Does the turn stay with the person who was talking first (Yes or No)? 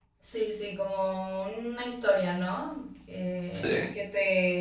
Yes